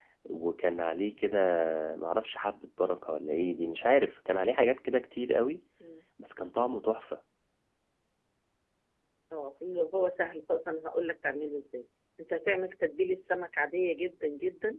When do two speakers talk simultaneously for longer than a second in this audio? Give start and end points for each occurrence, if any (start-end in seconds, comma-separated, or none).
none